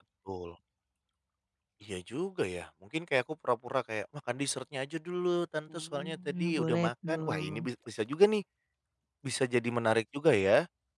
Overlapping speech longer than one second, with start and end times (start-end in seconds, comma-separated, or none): 5.7-7.7